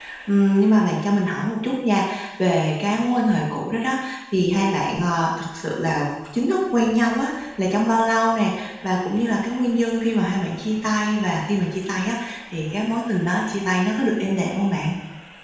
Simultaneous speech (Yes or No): No